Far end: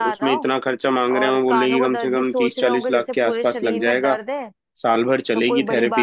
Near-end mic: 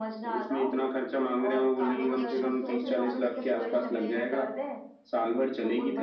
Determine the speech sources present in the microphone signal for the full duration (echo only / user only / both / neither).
both